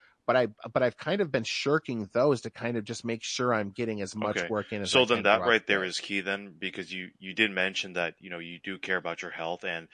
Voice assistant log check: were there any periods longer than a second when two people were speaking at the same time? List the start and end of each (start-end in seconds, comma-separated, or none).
4.2-5.9